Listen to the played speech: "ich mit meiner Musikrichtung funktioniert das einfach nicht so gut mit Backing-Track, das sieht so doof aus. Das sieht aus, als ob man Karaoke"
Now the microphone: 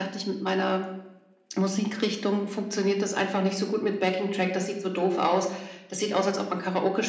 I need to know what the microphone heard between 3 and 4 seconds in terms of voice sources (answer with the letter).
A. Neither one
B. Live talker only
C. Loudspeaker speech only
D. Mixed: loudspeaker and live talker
C